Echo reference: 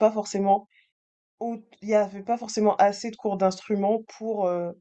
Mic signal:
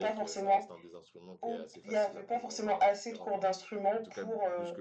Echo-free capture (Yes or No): No